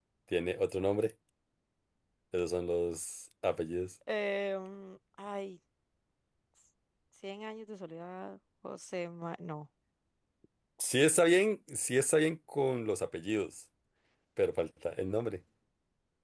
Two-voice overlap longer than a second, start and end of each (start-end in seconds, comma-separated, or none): none